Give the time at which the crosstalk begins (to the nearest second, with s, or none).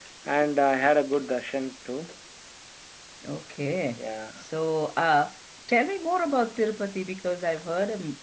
none